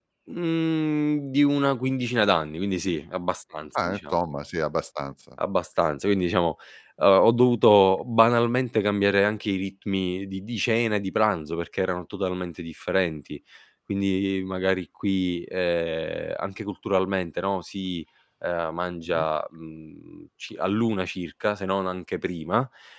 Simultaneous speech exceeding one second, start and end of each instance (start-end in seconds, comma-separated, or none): none